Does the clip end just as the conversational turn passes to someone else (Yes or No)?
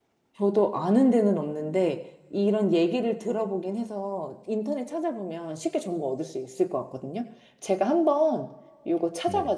No